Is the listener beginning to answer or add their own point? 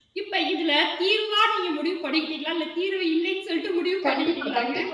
Yes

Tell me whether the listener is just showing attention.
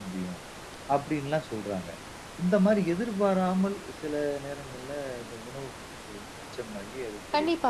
No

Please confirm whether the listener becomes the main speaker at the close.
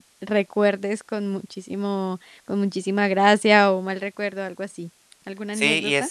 Yes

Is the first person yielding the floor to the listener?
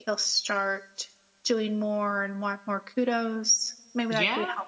Yes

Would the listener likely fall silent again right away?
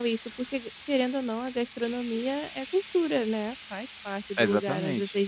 No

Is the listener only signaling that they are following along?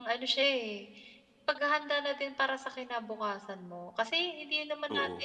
Yes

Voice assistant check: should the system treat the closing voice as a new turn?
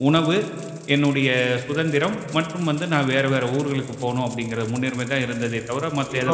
Yes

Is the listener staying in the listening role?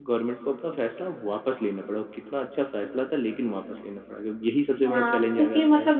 No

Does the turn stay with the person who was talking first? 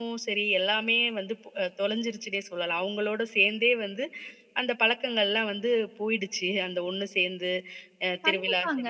No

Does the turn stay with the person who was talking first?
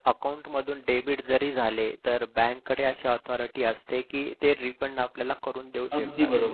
No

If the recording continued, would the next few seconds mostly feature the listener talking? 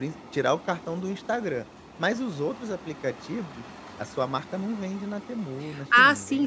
Yes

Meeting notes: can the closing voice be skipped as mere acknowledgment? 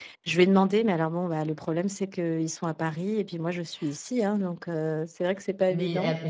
No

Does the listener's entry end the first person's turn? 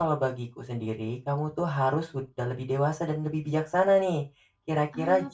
No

